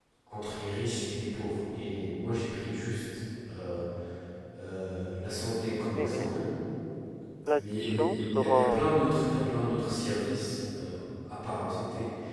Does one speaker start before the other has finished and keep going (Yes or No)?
Yes